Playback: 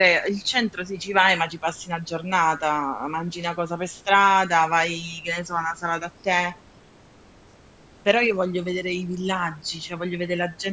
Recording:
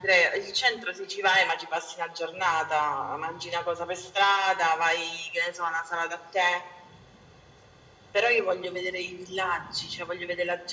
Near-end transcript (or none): none